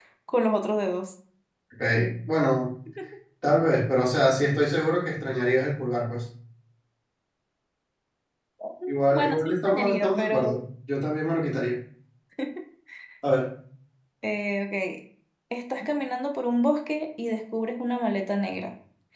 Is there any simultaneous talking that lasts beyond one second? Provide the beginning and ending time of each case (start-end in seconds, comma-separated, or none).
8.9-10.6